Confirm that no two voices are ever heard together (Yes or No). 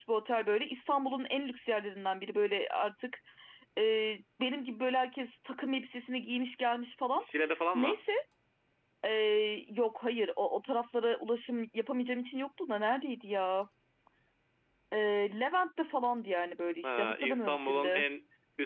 No